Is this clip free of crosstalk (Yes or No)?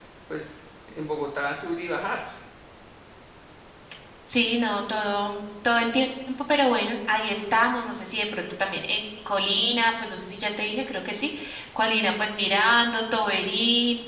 Yes